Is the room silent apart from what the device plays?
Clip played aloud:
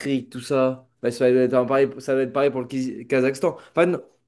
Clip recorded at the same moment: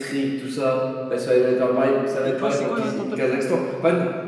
No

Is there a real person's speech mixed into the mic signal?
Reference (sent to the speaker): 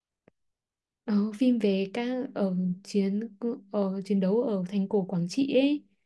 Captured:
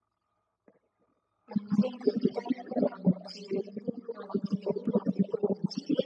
No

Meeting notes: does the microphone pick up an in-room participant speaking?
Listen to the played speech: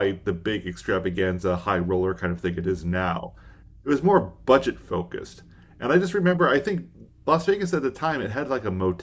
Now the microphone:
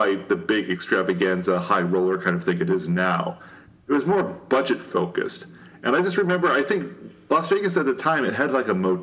No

